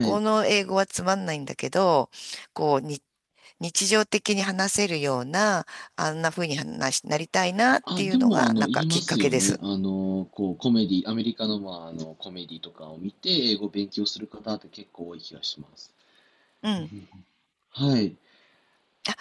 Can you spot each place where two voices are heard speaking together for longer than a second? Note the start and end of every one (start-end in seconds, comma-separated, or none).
8.0-9.6